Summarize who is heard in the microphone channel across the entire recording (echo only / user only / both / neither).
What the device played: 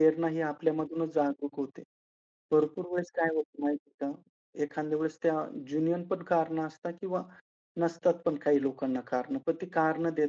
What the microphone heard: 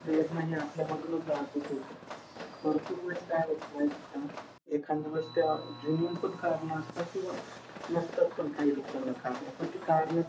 echo only